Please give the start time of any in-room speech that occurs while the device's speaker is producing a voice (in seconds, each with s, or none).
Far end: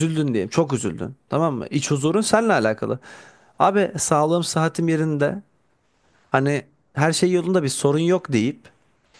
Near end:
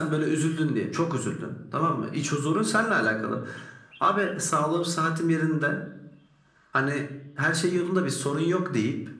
none